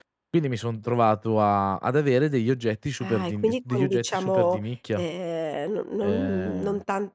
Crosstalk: present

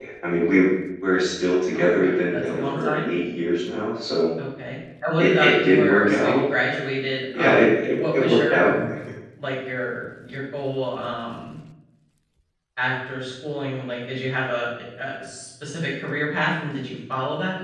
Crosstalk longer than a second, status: present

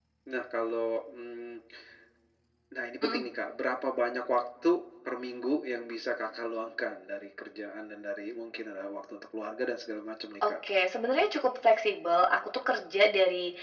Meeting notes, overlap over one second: none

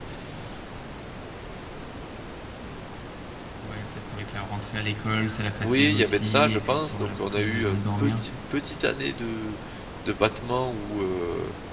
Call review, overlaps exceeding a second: present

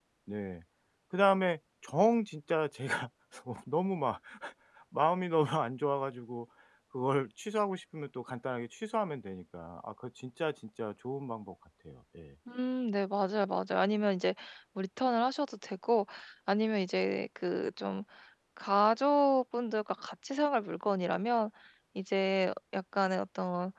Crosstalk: none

